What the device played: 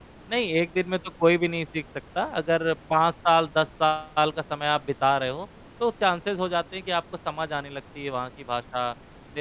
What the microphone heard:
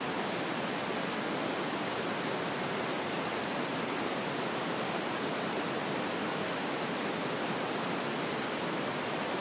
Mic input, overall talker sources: neither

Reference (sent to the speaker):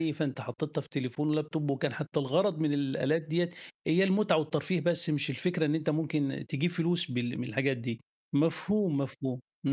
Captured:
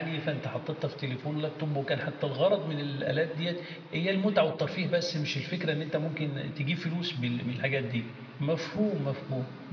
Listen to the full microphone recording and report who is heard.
echo only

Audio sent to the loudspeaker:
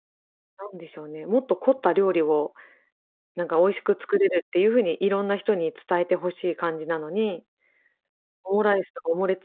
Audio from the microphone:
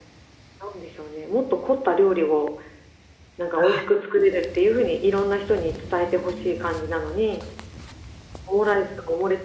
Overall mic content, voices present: both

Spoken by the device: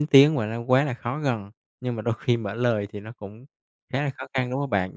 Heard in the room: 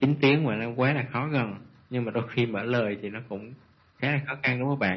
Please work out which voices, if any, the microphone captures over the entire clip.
echo only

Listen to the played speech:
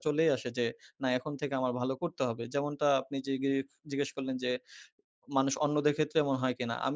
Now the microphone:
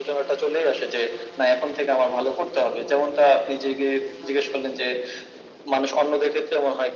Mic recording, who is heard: echo only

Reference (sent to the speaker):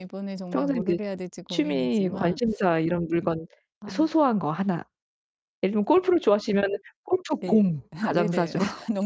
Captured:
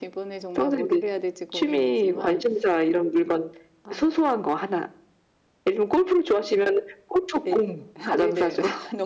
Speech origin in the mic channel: echo only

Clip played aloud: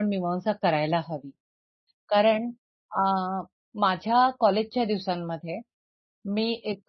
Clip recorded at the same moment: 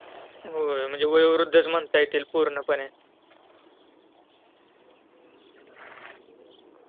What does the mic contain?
user only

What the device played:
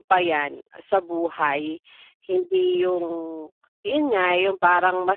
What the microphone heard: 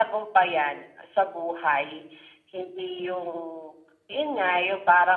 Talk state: echo only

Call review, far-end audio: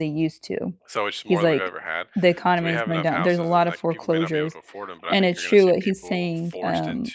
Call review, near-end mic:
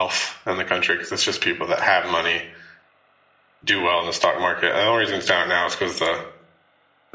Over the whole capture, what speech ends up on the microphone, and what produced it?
user only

